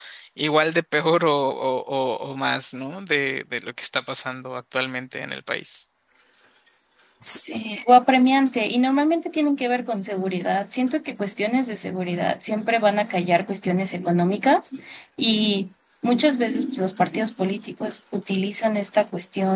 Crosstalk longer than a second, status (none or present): none